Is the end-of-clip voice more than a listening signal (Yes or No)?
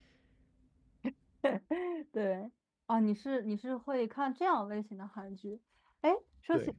No